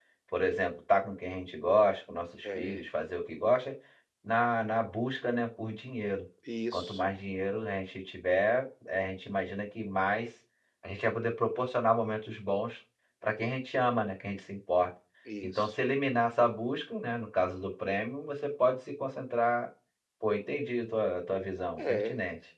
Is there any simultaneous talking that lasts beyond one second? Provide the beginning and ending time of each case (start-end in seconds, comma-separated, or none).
none